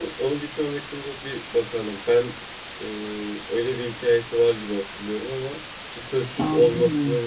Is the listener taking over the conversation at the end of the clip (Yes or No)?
No